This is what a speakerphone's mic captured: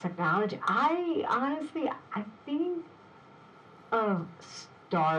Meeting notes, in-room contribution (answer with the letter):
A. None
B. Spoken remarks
A